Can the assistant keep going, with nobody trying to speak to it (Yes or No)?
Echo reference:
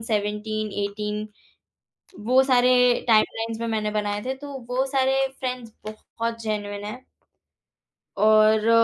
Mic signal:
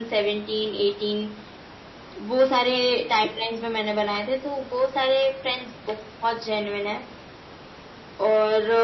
Yes